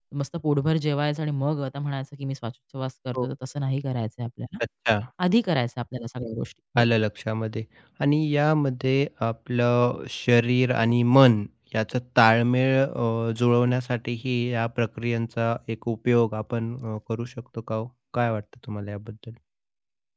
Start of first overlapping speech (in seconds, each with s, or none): none